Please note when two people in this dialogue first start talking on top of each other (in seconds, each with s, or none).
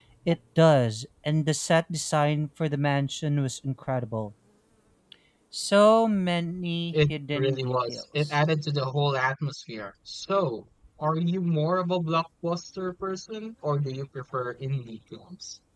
6.9 s